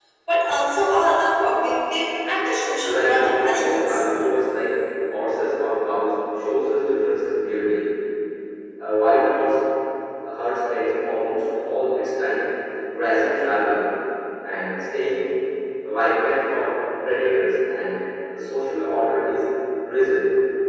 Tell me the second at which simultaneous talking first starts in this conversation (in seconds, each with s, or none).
2.8 s